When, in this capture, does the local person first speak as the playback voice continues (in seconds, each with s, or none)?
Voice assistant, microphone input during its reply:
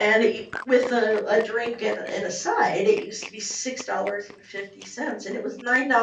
none